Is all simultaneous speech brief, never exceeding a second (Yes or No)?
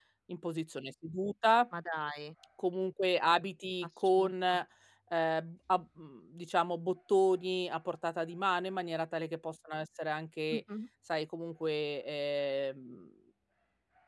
Yes